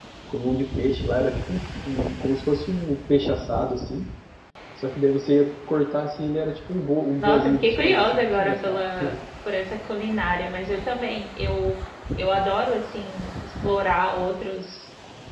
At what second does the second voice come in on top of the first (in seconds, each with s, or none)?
7.2 s